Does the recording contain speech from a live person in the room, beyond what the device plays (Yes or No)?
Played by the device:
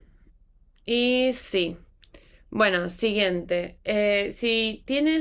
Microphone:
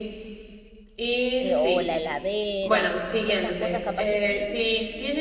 Yes